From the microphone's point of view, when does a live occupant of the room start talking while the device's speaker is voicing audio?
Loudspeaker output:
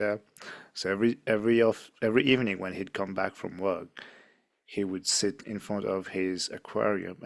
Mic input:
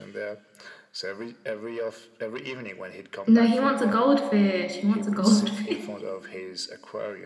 3.2 s

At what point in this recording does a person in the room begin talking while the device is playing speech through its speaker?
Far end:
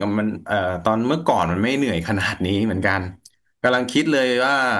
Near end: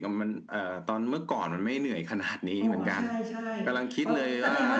2.6 s

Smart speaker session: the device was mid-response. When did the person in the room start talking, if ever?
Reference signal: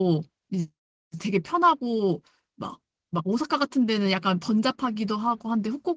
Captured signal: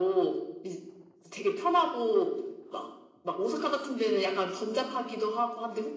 none

